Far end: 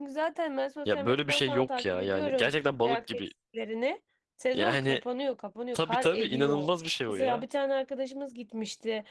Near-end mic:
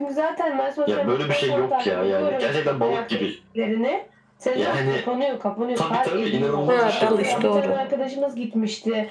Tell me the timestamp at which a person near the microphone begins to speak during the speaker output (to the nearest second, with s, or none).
7 s